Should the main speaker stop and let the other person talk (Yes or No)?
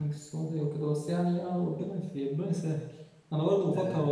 No